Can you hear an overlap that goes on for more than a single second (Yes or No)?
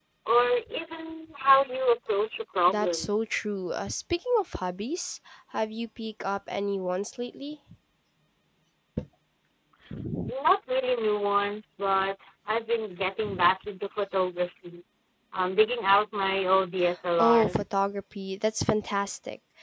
No